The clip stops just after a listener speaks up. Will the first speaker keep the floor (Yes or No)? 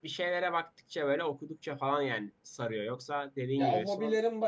No